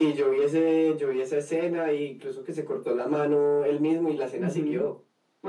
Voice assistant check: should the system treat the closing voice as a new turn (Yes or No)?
Yes